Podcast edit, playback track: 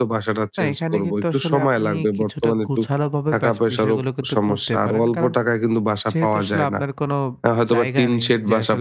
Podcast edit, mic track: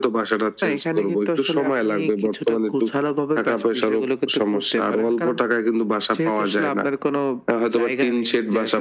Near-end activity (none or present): none